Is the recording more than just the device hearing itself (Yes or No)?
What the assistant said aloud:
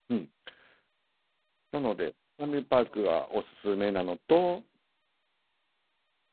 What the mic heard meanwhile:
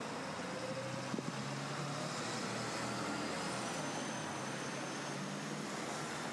No